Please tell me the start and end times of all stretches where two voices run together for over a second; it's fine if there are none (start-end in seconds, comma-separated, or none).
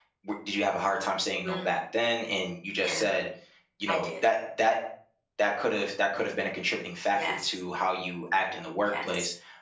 none